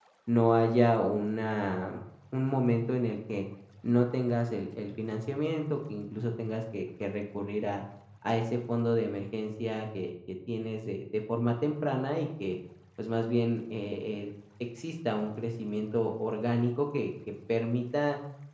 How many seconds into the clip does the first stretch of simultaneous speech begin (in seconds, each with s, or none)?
none